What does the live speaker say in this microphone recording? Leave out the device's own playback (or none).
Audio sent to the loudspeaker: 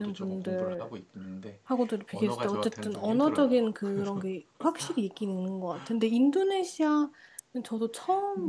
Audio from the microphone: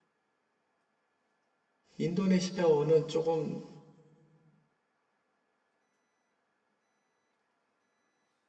인도네시아어는 조금